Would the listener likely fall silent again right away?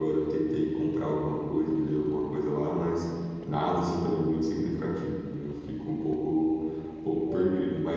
Yes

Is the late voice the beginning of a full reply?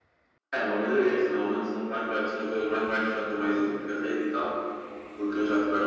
No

